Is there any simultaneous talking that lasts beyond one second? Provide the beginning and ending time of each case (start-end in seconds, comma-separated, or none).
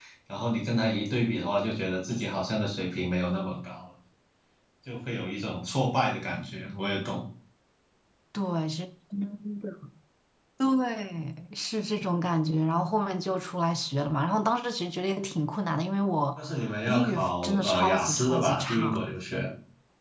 16.9-18.9